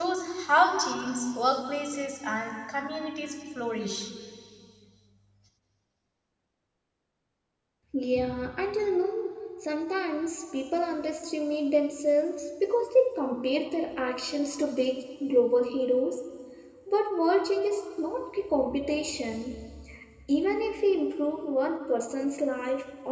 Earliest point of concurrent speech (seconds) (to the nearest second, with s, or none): none